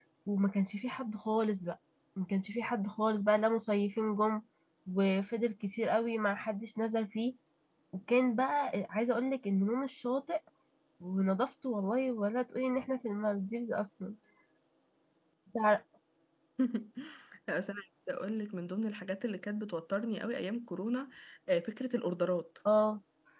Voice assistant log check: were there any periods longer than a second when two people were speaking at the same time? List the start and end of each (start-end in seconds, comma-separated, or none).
none